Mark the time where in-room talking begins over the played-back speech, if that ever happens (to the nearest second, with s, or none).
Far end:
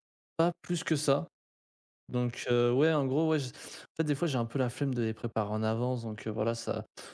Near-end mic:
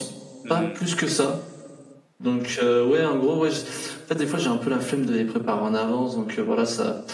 0 s